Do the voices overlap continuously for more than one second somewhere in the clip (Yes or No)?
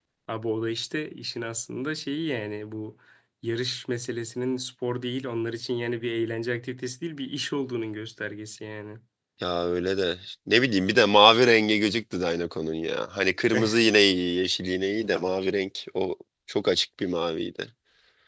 No